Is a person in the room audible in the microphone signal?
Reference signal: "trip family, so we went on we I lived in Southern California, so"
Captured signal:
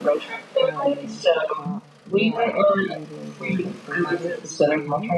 Yes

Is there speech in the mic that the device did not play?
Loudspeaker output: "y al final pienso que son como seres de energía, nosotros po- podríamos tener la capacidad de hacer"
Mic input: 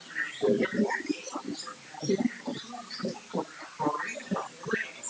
No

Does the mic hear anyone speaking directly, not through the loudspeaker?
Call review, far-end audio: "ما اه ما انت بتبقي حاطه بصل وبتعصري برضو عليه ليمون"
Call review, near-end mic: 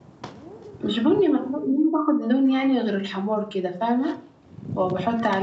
Yes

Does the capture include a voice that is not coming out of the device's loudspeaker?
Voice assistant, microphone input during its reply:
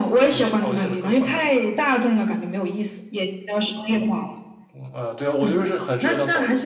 No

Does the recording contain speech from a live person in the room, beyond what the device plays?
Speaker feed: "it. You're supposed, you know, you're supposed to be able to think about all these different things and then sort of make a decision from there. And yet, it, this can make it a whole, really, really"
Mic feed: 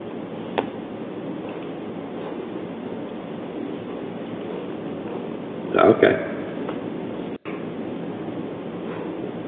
Yes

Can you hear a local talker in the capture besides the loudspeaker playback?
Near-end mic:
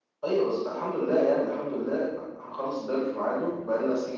Yes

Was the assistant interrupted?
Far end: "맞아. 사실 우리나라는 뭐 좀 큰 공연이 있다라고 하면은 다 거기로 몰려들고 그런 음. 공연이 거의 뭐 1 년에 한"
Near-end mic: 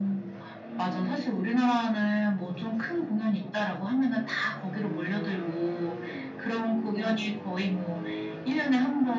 No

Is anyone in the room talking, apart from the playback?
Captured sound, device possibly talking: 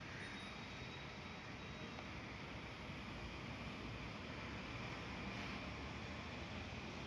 No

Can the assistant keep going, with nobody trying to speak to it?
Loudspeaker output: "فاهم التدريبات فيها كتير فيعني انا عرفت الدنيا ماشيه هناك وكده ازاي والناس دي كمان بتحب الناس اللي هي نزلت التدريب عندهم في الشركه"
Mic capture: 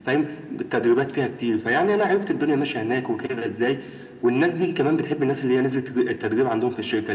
Yes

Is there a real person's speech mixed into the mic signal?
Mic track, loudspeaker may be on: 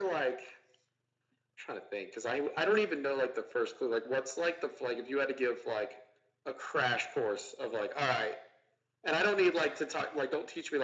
No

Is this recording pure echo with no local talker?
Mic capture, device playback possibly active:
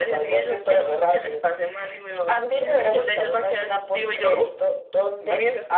No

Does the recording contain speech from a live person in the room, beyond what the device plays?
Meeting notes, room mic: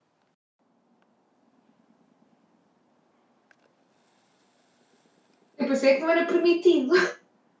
Yes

